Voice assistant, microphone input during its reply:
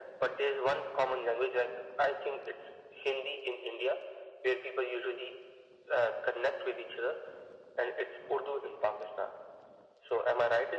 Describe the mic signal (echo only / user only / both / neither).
echo only